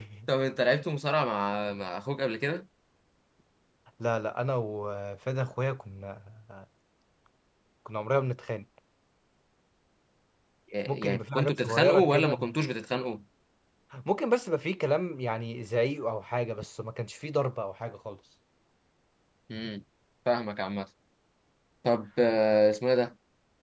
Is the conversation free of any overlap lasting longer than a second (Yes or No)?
No